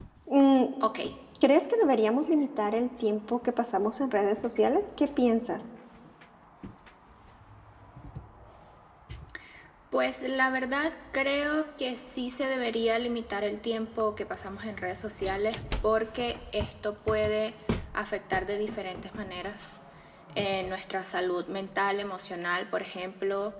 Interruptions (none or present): none